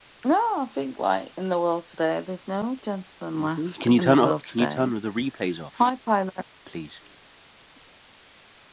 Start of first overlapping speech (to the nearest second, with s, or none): 3 s